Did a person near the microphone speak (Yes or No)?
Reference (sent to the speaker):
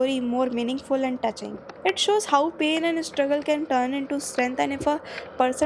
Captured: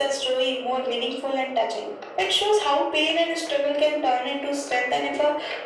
No